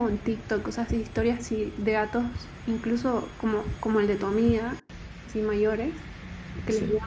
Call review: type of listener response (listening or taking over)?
listening